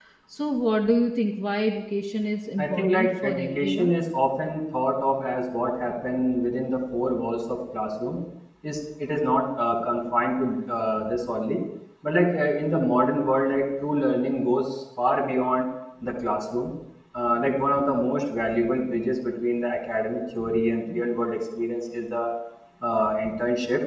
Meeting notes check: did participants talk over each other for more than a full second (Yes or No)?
Yes